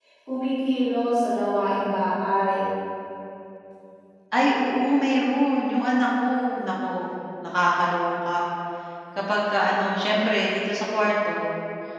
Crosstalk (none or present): none